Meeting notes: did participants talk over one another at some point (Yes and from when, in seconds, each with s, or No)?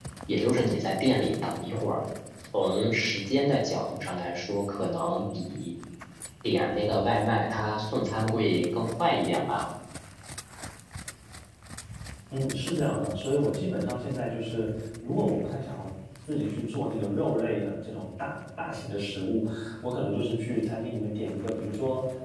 No